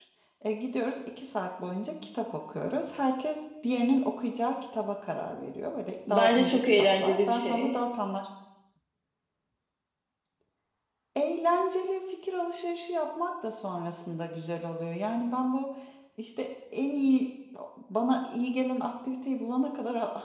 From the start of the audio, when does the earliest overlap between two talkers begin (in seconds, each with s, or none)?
6.1 s